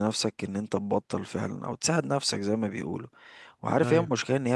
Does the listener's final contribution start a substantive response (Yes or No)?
No